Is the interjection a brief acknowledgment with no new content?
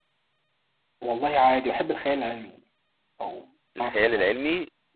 No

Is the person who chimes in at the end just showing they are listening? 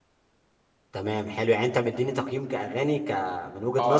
No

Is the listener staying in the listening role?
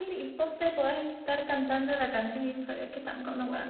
No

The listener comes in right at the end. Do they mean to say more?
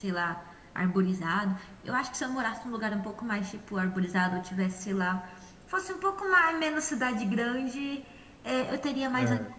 No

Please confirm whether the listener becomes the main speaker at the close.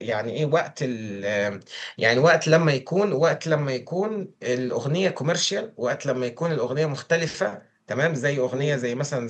No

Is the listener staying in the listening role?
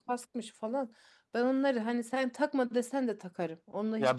No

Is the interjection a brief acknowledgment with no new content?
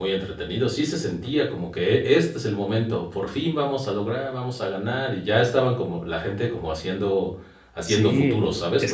No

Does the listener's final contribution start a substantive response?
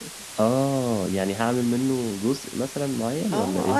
Yes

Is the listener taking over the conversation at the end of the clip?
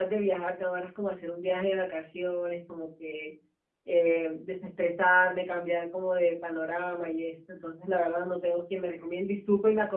No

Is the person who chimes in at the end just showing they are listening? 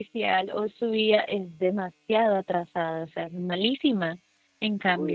Yes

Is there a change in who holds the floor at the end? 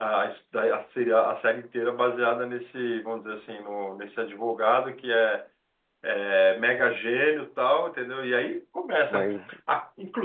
No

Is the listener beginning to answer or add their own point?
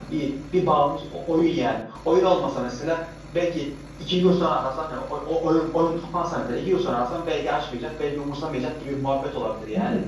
Yes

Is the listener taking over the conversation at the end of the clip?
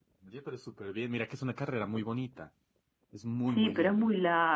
Yes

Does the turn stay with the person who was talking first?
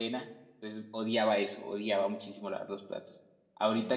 Yes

